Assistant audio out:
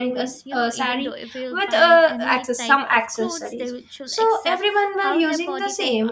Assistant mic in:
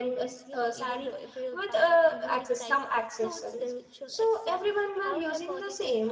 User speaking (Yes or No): No